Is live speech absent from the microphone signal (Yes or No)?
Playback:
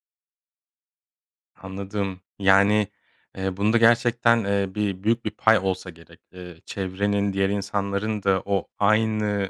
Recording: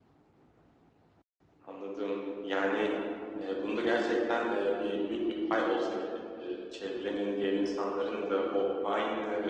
Yes